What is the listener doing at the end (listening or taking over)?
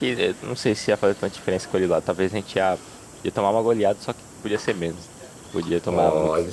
taking over